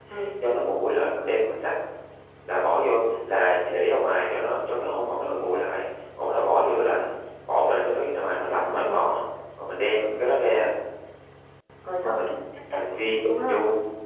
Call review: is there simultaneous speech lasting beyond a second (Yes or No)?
No